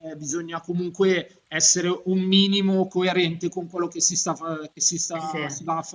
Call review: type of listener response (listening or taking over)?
listening